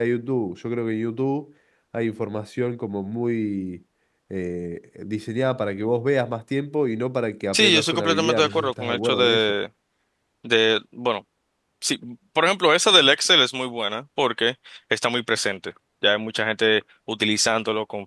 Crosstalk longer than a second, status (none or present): present